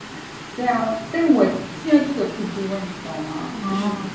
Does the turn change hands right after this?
No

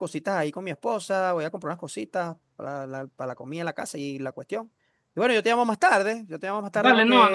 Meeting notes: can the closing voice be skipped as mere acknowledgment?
No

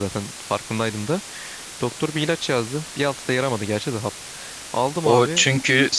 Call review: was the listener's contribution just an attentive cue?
No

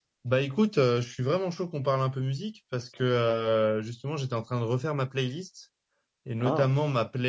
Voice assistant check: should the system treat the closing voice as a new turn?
No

